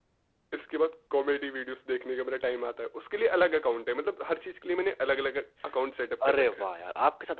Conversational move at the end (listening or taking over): taking over